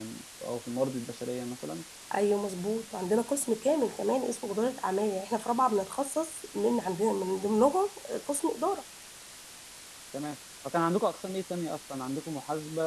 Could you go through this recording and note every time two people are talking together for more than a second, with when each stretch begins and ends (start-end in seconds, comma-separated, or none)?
none